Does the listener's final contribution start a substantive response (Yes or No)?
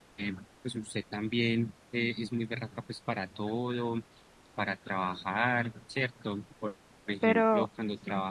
No